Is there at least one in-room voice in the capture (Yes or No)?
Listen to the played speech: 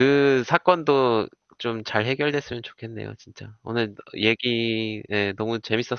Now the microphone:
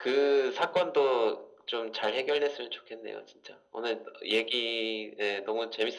No